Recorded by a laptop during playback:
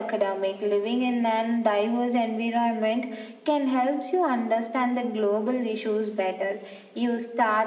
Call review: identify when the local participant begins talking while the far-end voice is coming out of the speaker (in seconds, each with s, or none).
none